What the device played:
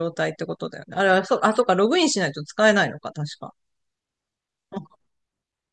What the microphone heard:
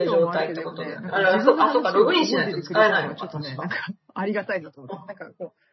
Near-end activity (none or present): present